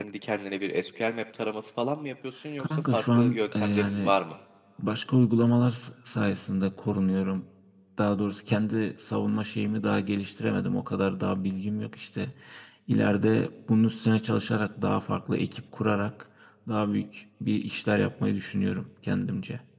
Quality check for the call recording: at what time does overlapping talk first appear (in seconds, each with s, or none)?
2.6 s